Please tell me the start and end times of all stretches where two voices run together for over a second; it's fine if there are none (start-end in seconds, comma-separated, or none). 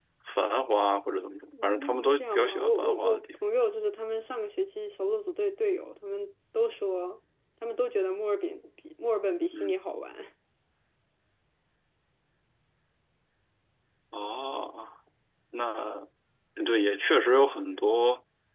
1.6-3.4